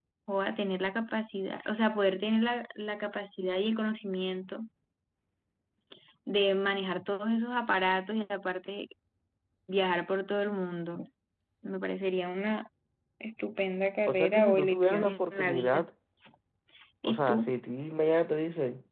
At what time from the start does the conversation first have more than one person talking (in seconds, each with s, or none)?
14.1 s